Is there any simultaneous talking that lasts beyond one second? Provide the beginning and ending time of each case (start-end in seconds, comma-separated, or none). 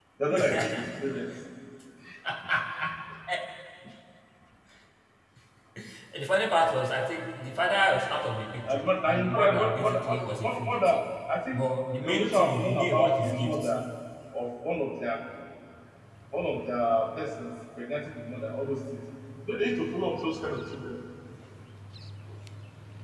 8.7-11.0, 12.0-13.6